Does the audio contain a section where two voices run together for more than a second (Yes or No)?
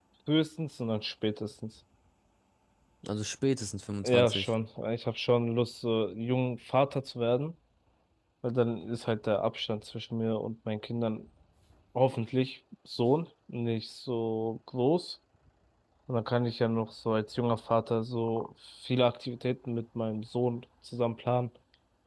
No